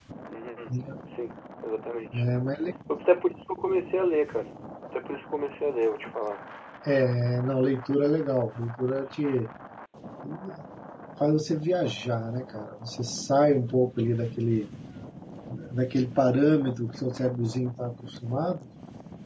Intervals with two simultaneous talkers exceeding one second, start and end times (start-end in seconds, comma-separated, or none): none